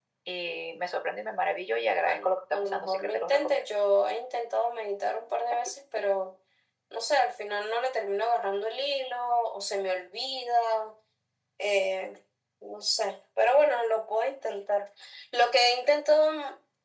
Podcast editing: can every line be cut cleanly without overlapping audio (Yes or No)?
No